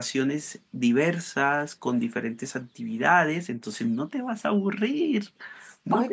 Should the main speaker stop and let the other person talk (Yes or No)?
Yes